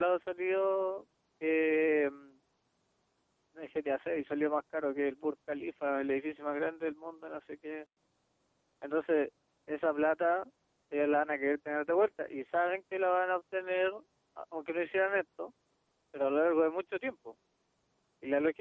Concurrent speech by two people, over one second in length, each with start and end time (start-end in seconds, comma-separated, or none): none